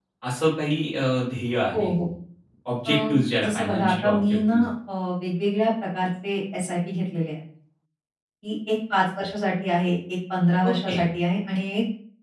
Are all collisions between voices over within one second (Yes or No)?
No